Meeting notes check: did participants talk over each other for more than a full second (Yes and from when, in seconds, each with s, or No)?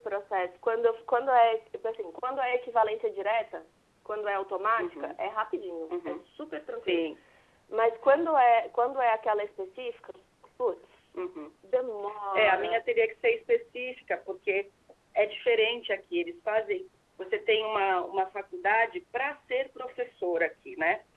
No